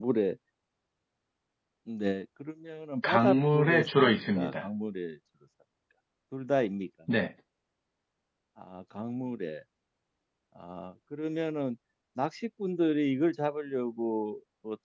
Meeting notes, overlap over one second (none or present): present